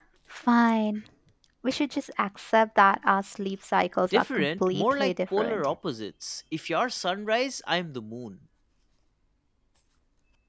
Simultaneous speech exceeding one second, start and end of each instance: 4.1-5.7

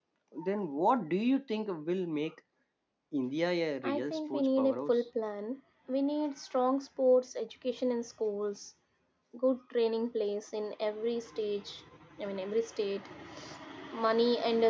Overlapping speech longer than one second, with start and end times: 3.8-5.0

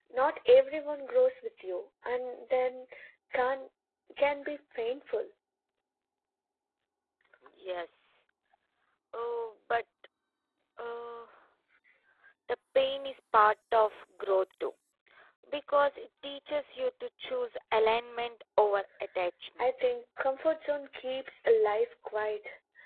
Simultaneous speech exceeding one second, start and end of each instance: none

